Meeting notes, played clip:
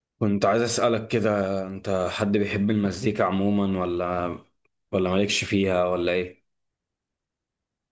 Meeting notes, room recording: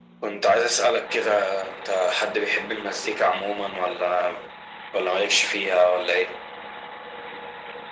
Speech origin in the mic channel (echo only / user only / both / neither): echo only